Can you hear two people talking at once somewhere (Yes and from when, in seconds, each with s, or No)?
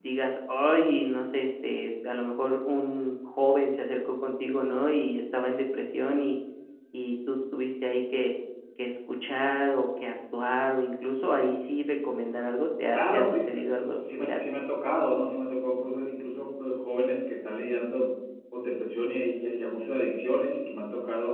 Yes, from 12.9 s